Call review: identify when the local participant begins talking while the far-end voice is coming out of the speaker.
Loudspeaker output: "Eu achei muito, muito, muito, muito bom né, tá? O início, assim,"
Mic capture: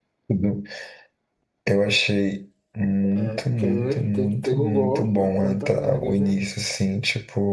3.1 s

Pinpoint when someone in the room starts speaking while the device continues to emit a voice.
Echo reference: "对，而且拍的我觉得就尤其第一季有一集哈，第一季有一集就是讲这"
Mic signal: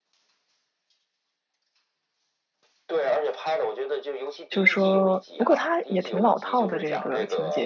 4.5 s

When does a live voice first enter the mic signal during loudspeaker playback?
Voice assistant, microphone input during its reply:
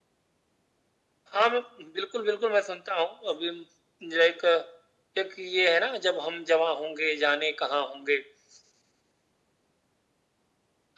none

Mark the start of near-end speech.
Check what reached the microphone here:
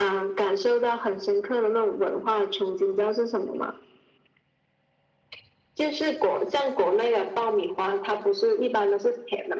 none

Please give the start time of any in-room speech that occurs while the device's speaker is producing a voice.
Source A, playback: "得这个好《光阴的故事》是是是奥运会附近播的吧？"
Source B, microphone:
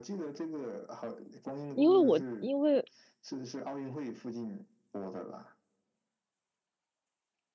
1.7 s

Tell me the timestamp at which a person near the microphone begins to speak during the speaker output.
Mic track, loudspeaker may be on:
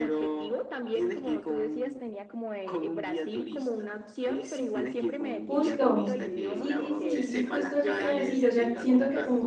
5.4 s

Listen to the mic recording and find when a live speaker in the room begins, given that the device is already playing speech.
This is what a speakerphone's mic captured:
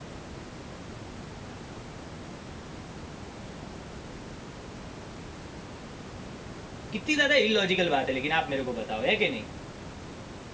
6.9 s

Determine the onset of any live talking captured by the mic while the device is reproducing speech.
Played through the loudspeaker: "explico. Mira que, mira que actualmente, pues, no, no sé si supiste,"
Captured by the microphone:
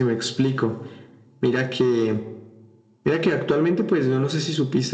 none

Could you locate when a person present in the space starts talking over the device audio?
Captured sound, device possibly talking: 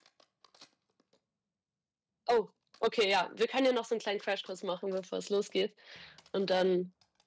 2.3 s

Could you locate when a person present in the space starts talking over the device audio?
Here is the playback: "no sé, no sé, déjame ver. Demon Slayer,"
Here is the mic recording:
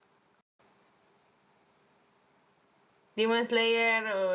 3.1 s

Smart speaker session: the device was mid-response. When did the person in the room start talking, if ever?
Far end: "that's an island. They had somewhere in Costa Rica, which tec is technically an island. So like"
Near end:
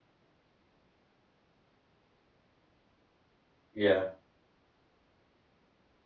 3.7 s

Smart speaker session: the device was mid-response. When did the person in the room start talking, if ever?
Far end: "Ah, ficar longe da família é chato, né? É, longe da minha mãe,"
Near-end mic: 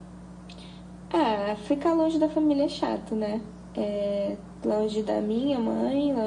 none

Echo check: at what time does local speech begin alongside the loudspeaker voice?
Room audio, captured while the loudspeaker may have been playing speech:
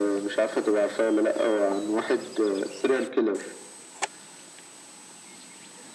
none

